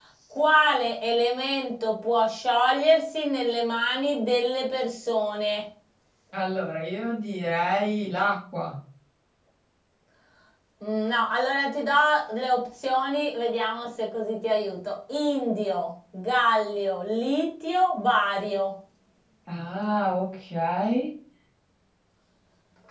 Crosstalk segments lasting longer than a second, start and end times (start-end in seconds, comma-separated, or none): none